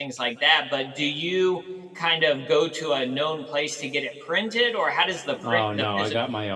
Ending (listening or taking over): taking over